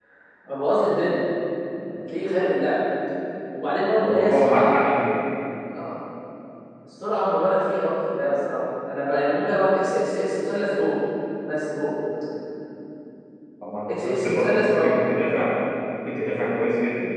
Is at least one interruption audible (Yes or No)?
Yes